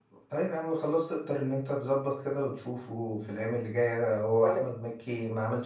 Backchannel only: Yes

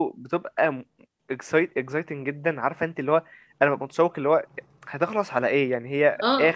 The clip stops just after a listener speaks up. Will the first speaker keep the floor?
No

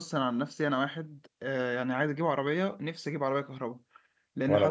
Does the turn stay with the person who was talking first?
Yes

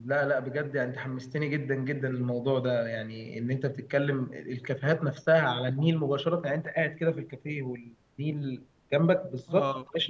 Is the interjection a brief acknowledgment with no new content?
No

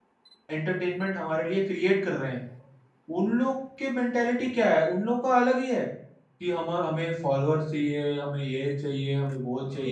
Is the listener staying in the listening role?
No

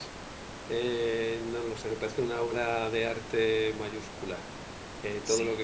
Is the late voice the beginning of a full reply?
No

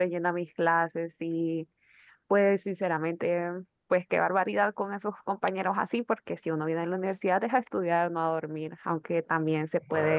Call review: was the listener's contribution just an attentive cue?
Yes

